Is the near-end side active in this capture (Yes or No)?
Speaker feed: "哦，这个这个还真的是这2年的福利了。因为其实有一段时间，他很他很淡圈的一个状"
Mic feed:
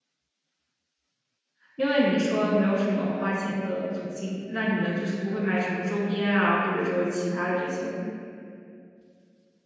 Yes